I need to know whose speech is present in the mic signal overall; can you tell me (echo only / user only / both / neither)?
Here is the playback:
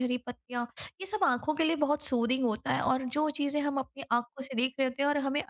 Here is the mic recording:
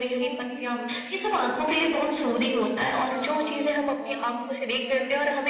both